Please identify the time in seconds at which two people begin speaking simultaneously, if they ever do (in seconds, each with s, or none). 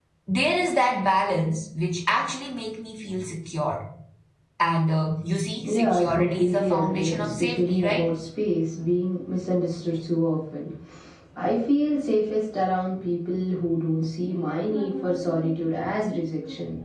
5.6 s